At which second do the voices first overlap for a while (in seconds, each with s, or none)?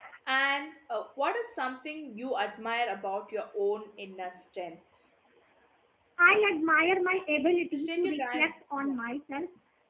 7.7 s